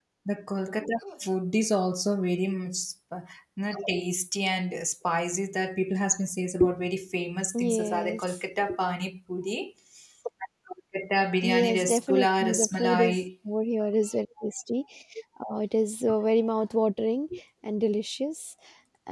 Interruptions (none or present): present